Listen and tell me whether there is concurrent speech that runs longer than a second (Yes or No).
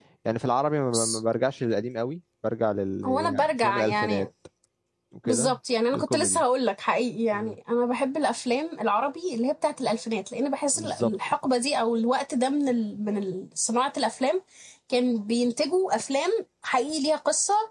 Yes